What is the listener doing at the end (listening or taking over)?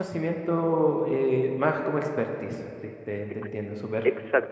taking over